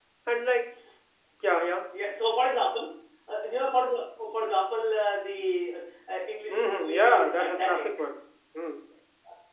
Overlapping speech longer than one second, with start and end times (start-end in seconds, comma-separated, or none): 6.5-7.8